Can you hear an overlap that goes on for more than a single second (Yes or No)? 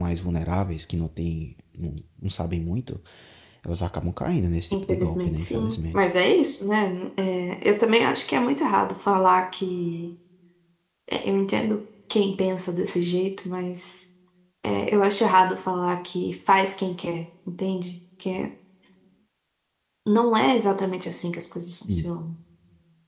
Yes